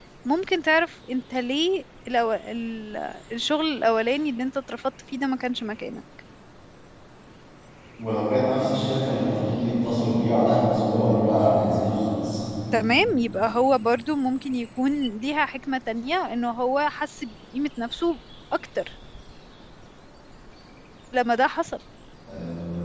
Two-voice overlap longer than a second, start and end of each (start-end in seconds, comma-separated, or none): none